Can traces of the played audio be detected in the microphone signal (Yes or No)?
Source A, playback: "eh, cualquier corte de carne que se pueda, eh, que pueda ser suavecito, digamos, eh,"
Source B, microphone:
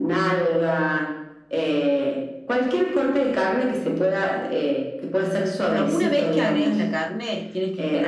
Yes